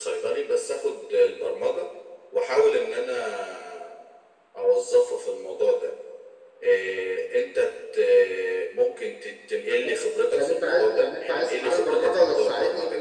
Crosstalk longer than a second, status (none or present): present